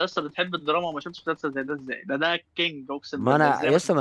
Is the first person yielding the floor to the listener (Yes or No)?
Yes